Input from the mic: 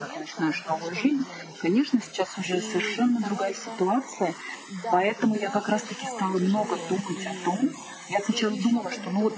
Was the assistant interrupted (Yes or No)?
Yes